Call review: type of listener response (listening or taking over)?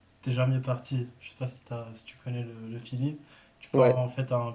listening